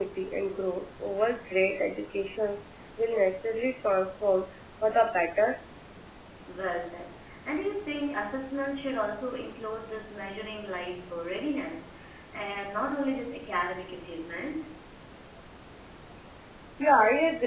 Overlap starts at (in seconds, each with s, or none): none